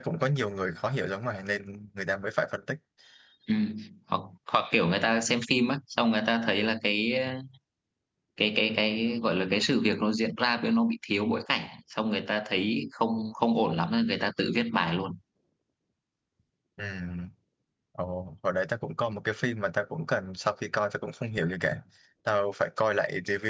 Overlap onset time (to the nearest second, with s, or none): none